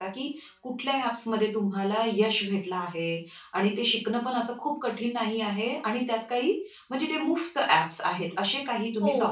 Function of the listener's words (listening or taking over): taking over